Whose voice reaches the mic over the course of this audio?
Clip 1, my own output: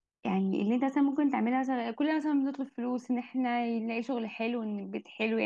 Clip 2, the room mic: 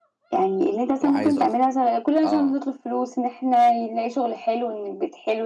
both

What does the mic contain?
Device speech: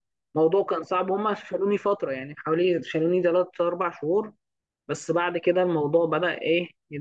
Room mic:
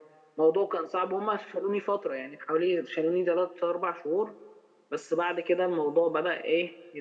echo only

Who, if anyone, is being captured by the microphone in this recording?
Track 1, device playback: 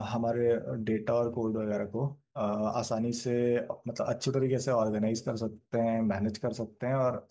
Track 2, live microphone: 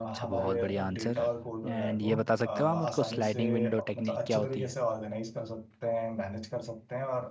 both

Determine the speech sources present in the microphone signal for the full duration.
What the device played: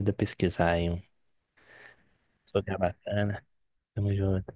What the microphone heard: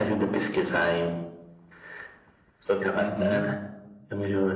both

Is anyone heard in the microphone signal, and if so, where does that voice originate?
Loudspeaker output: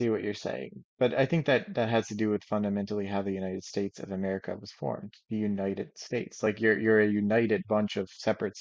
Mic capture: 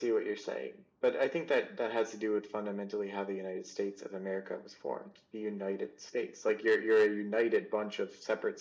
echo only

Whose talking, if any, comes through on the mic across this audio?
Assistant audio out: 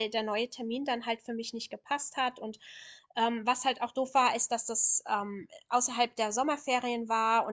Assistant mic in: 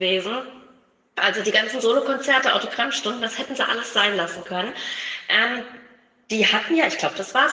user only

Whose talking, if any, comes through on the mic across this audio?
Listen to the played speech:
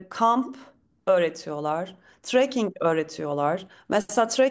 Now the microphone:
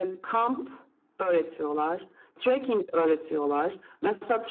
echo only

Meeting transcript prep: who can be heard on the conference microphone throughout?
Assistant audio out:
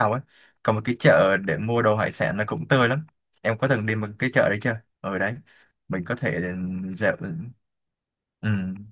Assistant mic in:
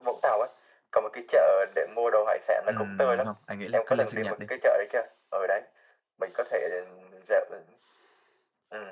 both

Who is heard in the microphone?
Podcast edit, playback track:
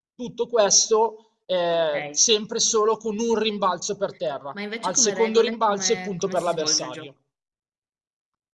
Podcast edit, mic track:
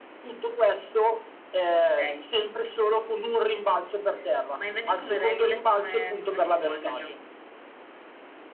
echo only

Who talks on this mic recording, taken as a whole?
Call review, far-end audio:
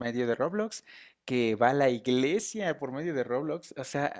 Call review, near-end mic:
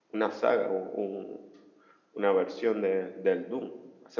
user only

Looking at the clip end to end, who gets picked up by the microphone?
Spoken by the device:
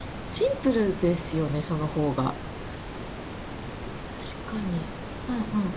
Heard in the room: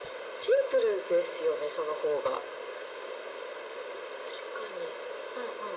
echo only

